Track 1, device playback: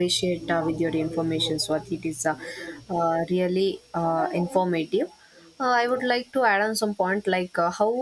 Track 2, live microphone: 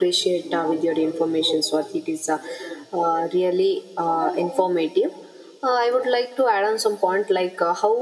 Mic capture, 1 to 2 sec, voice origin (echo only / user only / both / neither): echo only